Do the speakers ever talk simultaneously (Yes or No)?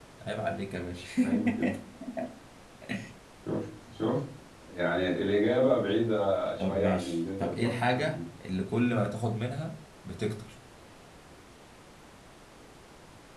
Yes